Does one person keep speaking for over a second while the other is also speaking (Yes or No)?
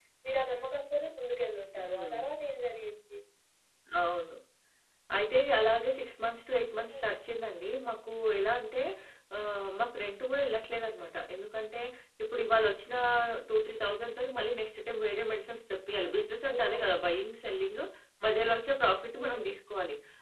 No